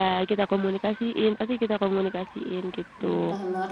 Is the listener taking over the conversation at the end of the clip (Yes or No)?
Yes